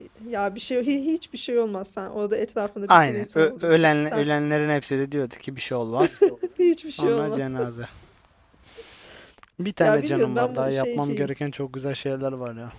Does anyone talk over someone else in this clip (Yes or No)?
Yes